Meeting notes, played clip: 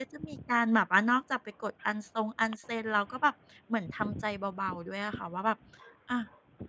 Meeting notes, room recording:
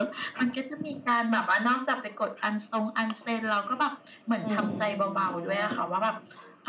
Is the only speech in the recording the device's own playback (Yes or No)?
No